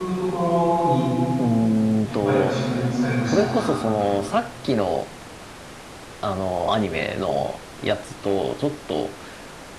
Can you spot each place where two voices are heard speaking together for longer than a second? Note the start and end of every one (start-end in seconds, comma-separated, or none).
none